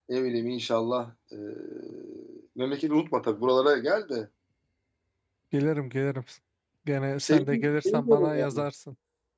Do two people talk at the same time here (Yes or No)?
Yes